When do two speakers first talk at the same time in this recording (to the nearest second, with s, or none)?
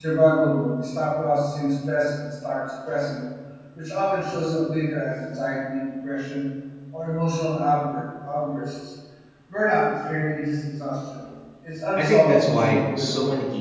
12 s